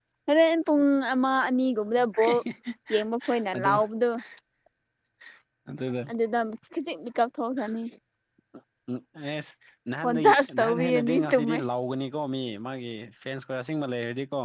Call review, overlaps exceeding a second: present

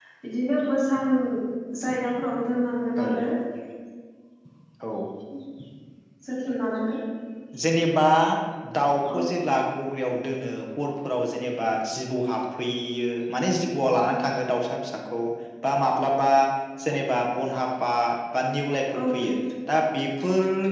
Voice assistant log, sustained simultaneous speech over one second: none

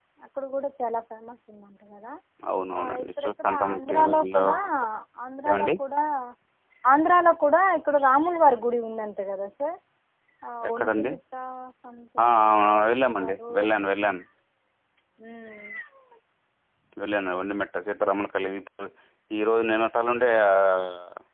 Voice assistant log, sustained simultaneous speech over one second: present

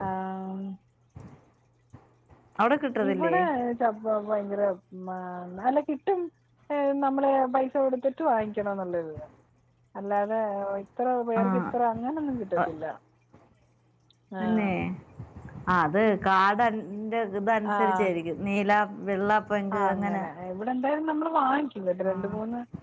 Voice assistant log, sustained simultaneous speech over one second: none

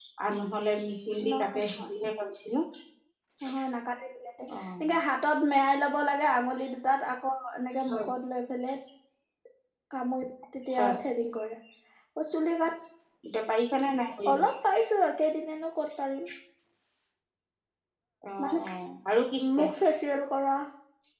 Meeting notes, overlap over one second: none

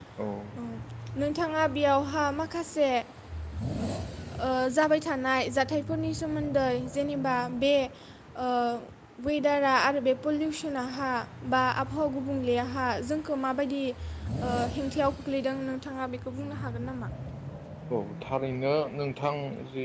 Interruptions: none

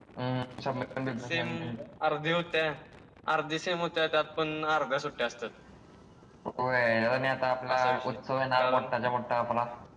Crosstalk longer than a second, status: none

